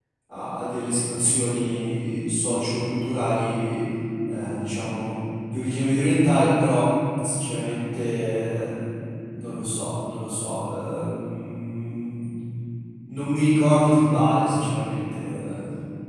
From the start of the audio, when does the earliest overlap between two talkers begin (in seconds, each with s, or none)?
none